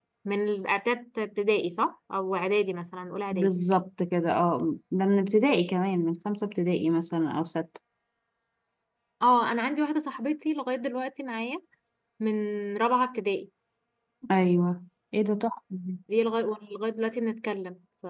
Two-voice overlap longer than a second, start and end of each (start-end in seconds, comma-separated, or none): none